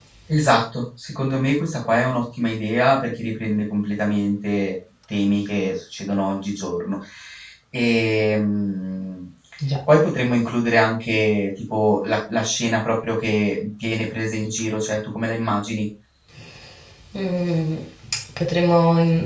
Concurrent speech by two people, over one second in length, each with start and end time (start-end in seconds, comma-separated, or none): none